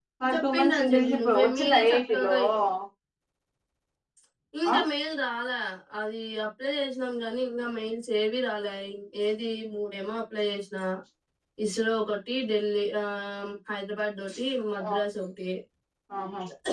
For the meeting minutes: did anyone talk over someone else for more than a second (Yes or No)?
Yes